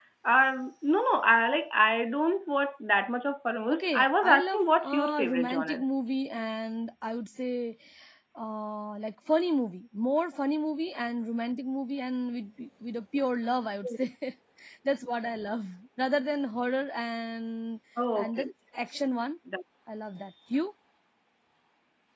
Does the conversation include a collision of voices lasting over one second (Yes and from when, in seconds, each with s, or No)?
Yes, from 3.7 s